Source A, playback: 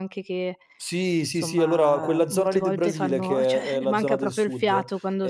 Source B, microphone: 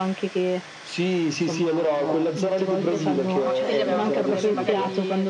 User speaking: Yes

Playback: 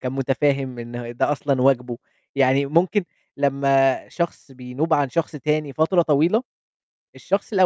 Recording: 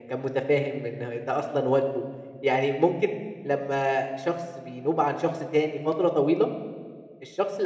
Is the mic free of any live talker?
Yes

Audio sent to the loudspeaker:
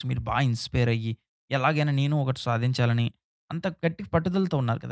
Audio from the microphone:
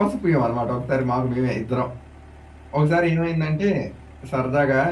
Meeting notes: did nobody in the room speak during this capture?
No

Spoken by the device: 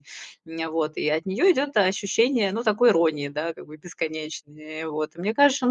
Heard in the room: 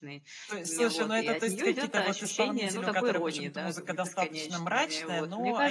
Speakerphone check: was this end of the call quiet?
No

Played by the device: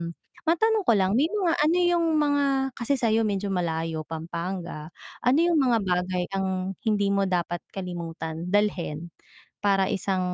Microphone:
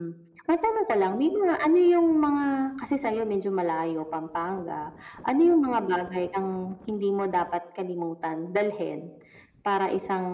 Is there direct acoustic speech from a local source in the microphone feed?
No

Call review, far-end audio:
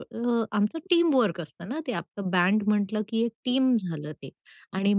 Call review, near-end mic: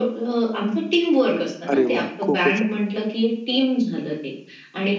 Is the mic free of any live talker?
No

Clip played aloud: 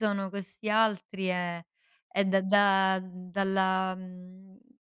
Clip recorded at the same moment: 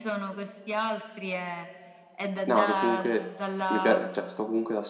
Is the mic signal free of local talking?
No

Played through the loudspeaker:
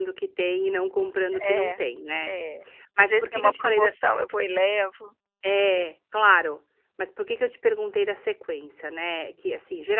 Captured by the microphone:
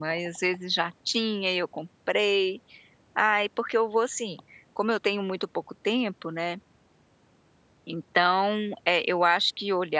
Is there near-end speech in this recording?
Yes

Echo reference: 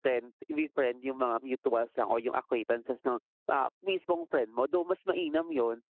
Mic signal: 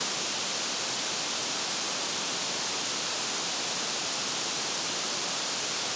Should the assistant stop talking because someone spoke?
No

